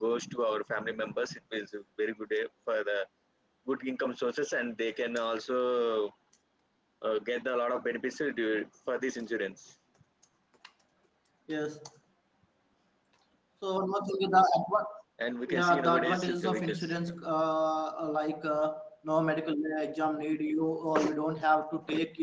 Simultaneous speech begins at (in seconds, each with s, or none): 15.5 s